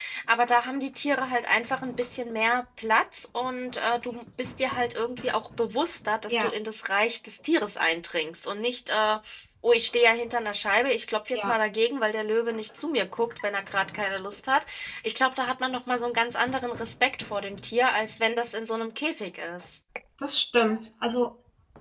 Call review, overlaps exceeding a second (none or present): none